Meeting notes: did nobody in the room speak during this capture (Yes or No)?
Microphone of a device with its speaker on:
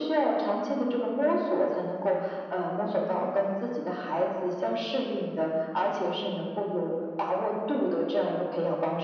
Yes